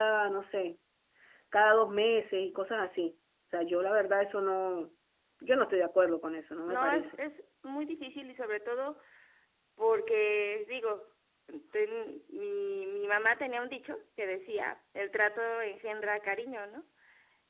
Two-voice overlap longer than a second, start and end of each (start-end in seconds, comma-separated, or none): none